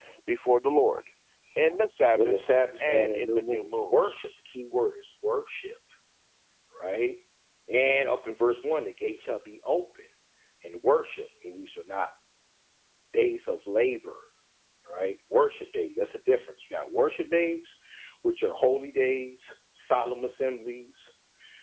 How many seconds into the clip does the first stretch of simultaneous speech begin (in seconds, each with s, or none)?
2.1 s